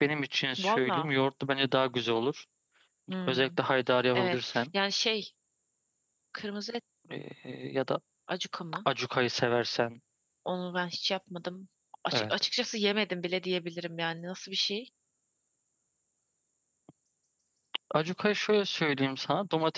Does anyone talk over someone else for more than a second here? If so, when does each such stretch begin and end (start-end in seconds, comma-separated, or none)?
none